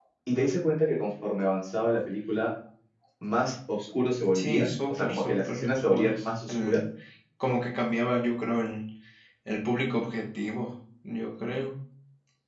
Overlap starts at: 4 s

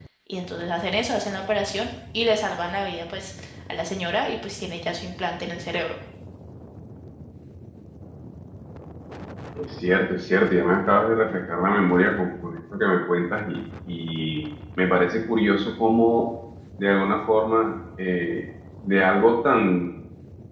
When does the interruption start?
none

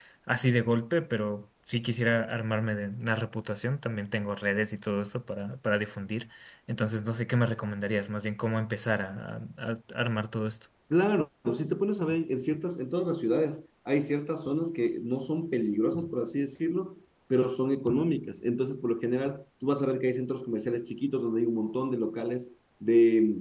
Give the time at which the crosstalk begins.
none

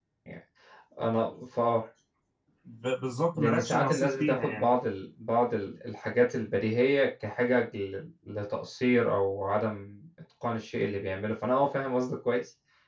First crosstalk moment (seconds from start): 3 s

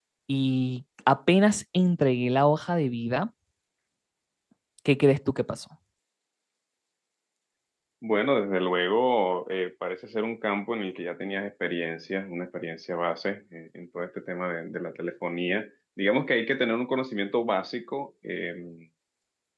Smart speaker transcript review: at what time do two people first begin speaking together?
none

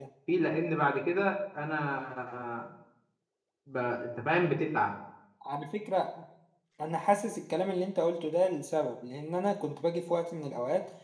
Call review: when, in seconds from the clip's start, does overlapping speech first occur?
none

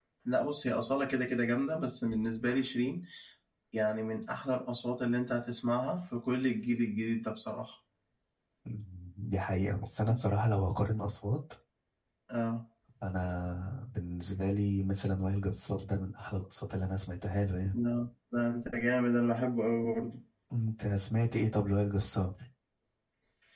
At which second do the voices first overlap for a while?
none

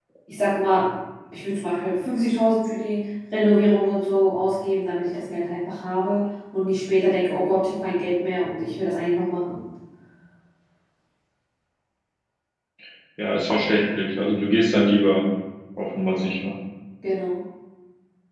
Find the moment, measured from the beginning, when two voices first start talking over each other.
none

